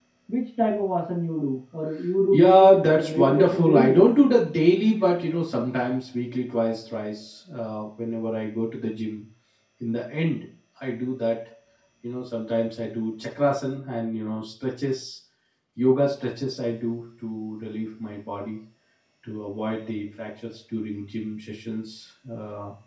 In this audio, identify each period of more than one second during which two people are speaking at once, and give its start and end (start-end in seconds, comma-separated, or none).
2.3-4.0